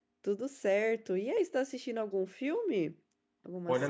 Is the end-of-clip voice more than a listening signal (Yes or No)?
Yes